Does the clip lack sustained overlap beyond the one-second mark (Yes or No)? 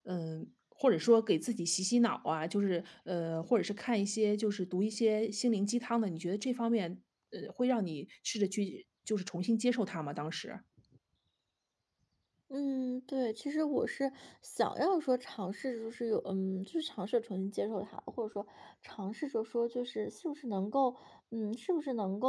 Yes